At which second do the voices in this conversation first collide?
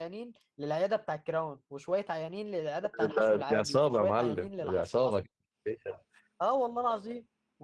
2.9 s

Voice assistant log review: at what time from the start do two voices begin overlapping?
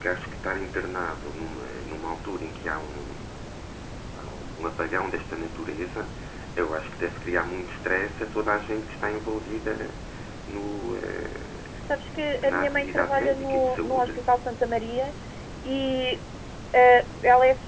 12.4 s

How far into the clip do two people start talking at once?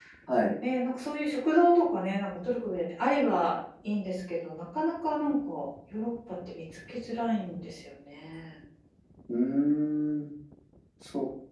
none

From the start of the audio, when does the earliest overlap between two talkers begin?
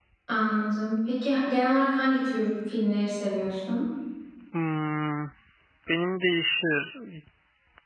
none

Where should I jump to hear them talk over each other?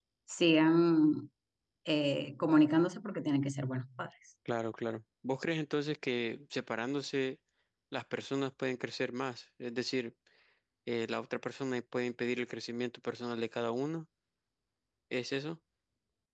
none

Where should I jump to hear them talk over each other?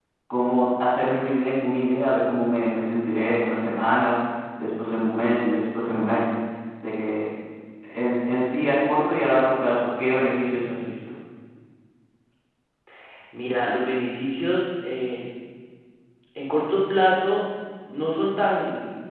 none

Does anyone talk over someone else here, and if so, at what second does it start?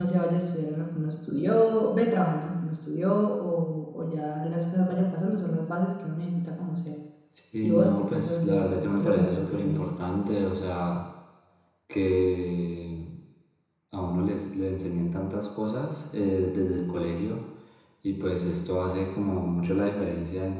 7.6 s

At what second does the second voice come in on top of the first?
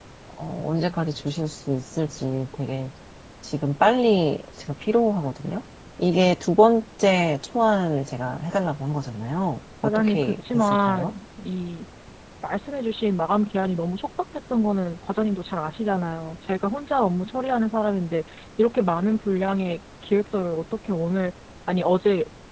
9.8 s

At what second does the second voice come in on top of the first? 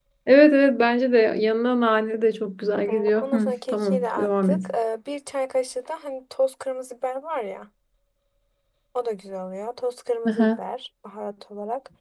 2.9 s

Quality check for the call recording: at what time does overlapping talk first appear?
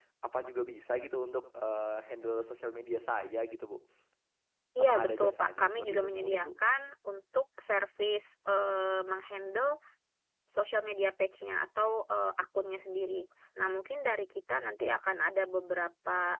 4.8 s

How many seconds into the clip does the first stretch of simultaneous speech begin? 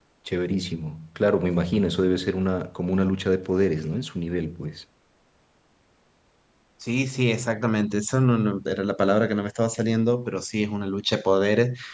none

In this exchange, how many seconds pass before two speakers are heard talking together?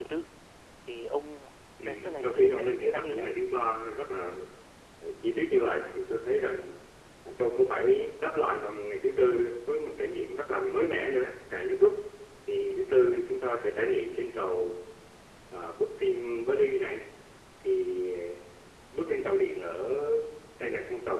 1.8 s

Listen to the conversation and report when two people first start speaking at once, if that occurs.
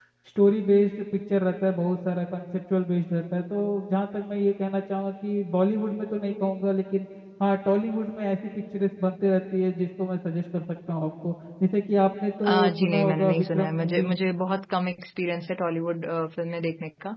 12.4 s

